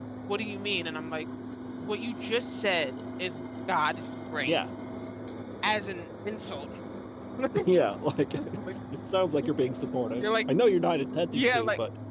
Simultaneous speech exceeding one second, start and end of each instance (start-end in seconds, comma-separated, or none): none